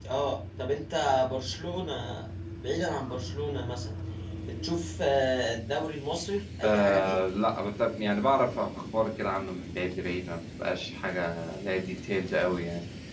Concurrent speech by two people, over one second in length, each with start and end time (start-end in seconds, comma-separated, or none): none